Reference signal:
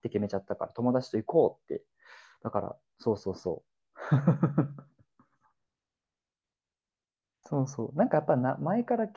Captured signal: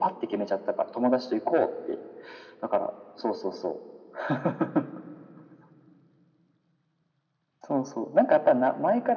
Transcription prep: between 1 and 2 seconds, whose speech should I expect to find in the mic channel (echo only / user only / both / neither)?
echo only